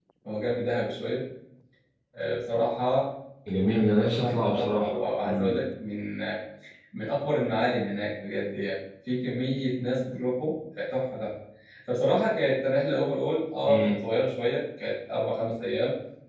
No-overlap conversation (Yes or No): No